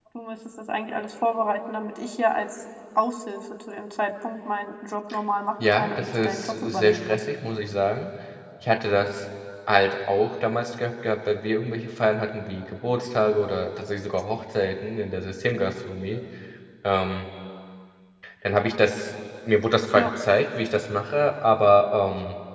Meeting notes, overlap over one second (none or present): present